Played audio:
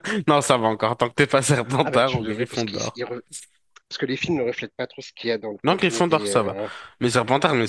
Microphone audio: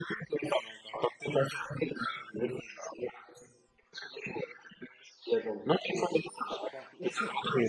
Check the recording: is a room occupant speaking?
Yes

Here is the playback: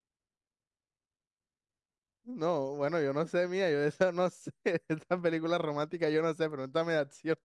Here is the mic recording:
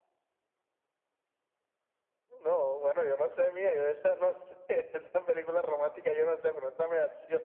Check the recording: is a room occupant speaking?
No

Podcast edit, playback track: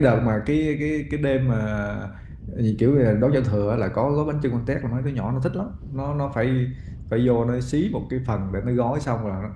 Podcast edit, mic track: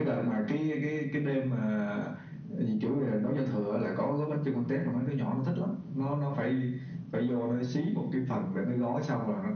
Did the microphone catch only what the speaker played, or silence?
Yes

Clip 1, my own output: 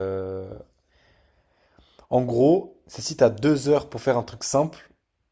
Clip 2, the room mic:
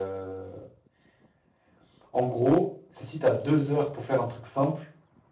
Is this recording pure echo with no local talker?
Yes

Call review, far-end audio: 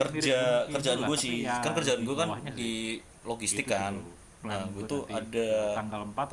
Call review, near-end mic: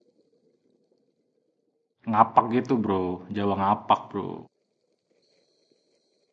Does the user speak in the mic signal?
Yes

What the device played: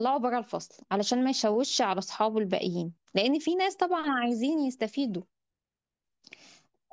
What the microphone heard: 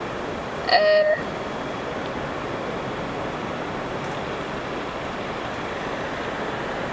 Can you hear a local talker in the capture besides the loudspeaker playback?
Yes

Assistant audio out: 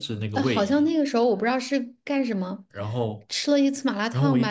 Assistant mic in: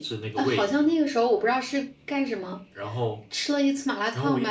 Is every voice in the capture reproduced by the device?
Yes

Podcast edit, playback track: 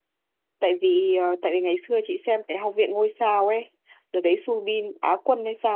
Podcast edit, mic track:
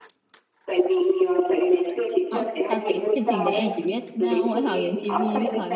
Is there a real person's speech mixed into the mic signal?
Yes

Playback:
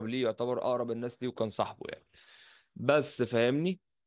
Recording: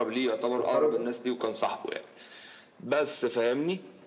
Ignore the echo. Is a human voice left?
Yes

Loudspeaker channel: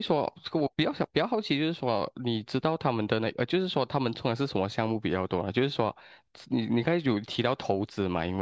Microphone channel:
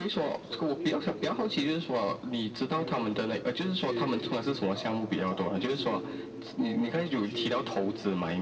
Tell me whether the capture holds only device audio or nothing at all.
No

